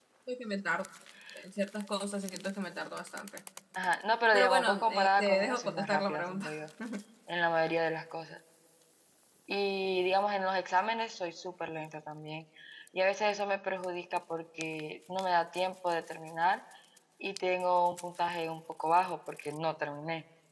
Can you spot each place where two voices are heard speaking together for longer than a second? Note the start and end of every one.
4.3-6.5

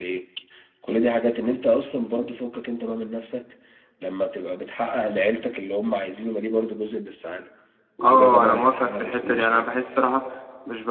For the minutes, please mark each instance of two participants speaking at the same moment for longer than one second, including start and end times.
8.0-9.7

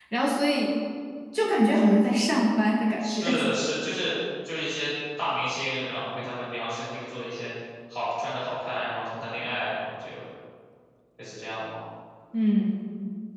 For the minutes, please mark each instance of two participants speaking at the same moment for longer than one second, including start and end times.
none

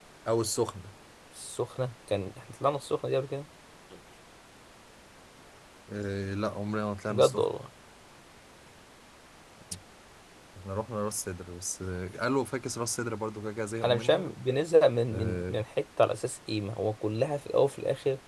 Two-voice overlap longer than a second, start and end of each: none

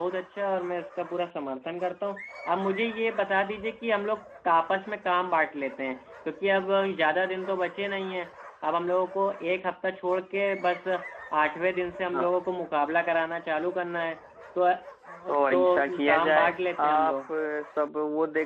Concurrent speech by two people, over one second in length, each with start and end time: 15.5-17.2

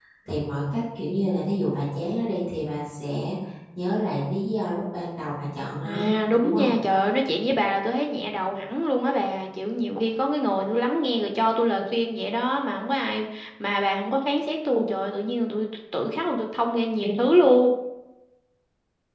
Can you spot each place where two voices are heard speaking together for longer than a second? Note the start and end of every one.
none

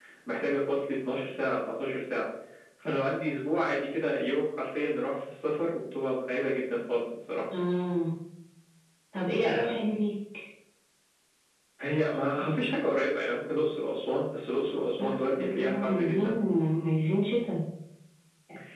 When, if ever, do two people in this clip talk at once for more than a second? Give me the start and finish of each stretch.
15.0-16.4

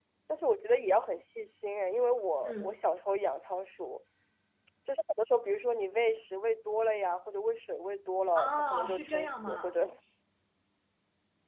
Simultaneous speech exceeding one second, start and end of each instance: 8.3-9.7

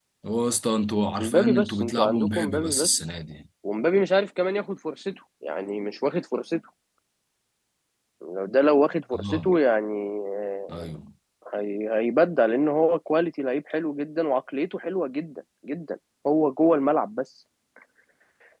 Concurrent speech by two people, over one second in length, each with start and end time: 1.2-3.0

